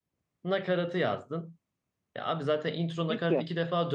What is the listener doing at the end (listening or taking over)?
listening